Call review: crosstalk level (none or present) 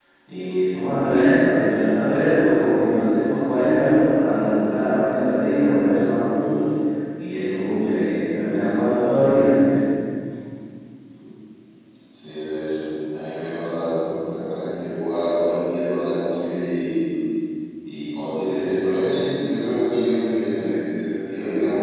none